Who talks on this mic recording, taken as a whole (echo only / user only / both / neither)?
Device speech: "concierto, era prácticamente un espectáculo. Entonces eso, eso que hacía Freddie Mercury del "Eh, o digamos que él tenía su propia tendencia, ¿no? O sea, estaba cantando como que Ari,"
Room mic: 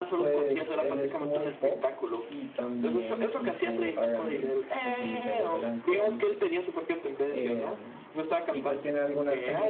both